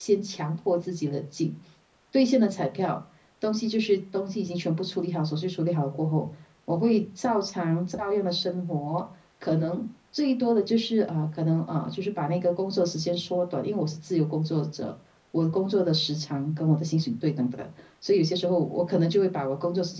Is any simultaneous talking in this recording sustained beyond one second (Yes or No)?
No